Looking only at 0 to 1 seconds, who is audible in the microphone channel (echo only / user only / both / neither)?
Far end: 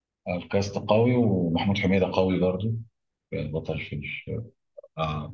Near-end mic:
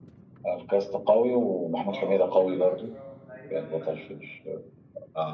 echo only